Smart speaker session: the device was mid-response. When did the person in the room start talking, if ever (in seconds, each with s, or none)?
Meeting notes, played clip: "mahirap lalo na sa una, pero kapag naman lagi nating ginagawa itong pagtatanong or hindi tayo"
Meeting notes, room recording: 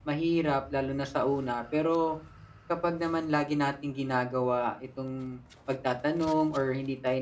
none